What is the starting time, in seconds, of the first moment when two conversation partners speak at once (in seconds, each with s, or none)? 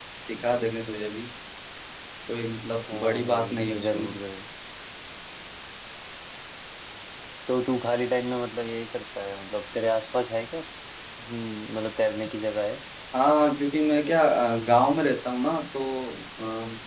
2.9 s